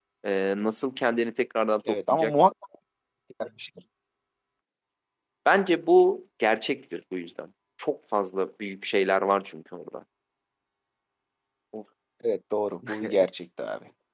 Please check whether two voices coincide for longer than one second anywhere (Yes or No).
No